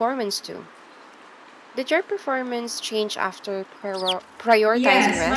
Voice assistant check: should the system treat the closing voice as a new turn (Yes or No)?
Yes